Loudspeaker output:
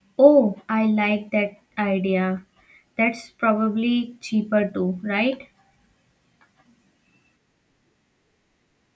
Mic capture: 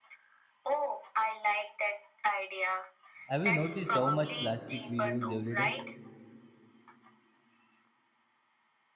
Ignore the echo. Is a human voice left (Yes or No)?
Yes